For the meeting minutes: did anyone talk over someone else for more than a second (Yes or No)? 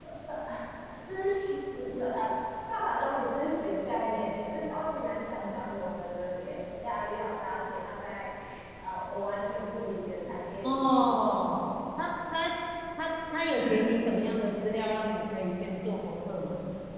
No